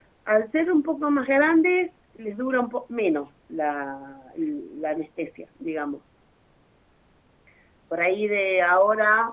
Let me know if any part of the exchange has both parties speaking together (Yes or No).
No